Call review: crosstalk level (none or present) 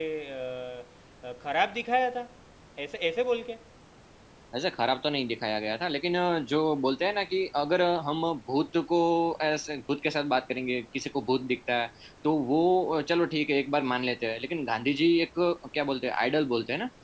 none